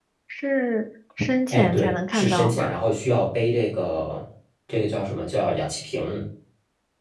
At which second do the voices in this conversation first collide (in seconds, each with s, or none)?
1.5 s